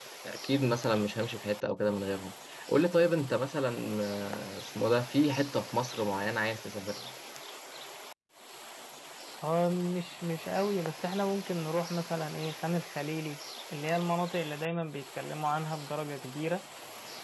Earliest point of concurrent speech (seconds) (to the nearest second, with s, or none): none